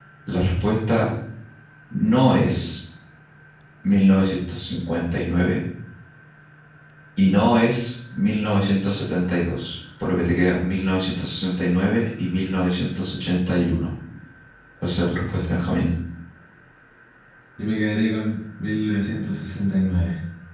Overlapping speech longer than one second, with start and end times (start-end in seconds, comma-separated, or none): none